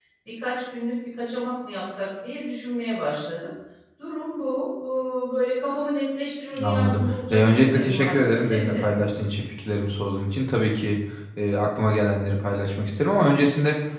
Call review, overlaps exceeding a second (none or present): present